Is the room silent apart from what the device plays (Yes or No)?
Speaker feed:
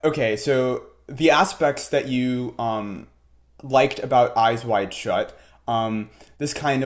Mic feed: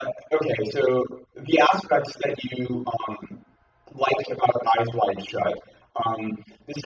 Yes